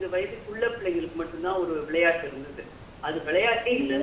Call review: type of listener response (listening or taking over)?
listening